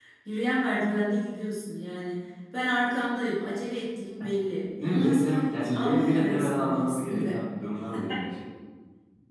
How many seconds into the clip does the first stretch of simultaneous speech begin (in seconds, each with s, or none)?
4.8 s